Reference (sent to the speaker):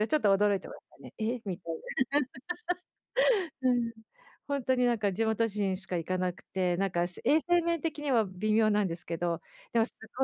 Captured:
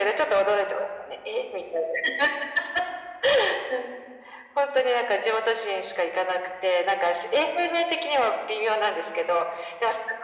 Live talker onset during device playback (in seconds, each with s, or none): none